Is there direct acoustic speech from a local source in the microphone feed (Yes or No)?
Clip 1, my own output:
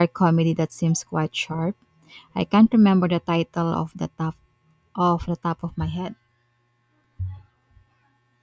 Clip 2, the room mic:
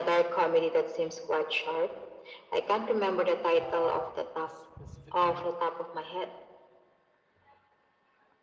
Yes